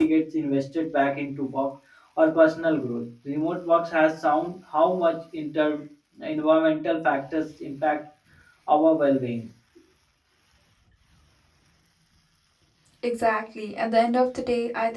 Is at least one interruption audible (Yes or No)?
No